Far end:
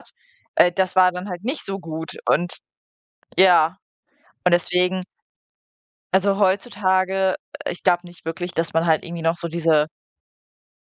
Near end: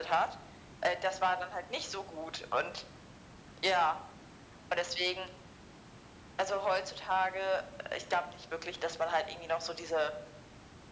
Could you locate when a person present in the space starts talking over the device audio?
none

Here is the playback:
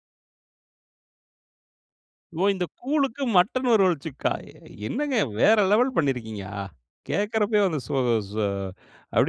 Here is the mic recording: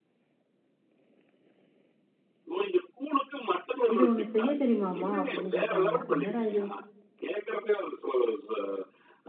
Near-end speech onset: 3.9 s

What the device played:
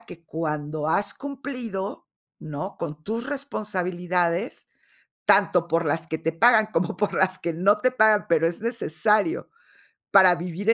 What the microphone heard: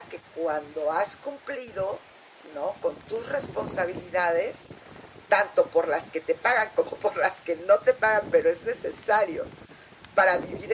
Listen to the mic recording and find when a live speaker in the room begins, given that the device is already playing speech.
none

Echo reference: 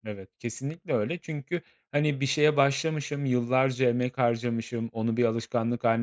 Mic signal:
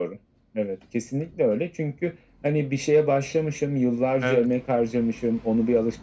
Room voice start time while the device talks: 4.2 s

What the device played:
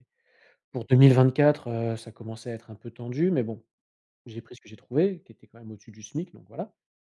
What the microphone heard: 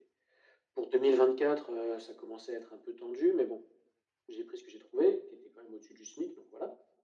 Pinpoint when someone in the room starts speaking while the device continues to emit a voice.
none

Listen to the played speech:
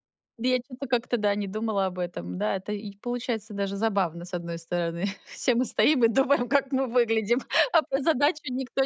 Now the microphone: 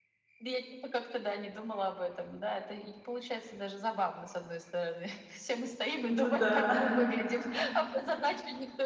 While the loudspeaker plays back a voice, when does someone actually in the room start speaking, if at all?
6.0 s

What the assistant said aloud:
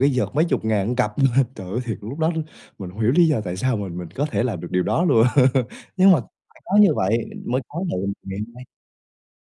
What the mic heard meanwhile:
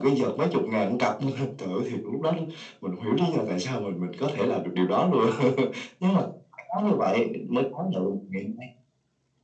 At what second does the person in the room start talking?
none

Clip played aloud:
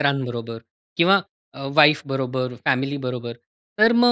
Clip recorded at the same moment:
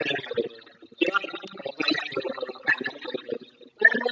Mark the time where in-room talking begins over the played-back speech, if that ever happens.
none

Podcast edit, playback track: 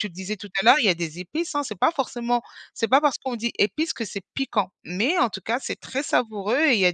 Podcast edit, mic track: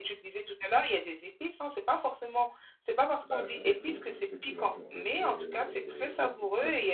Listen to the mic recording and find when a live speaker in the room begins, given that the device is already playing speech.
3.2 s

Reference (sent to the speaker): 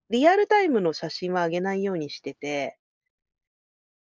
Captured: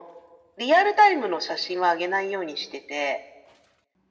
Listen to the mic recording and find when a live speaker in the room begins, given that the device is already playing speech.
none

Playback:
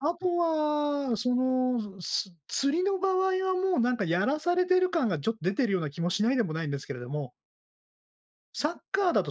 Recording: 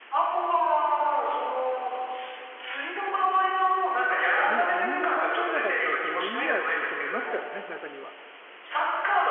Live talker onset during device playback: 4.4 s

